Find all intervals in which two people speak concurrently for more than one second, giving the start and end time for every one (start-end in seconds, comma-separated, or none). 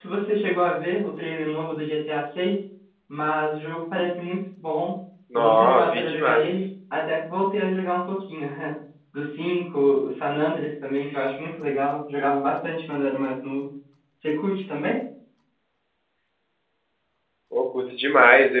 5.3-6.6